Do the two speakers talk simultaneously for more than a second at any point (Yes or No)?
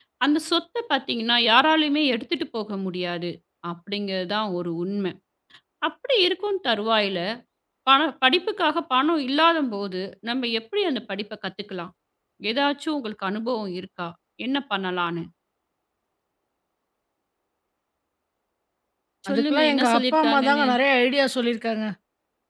Yes